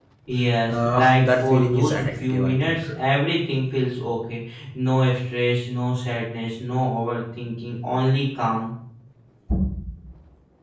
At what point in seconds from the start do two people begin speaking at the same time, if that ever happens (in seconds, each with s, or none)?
0.7 s